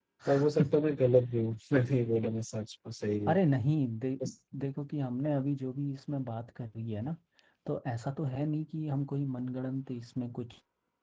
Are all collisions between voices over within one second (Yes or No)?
Yes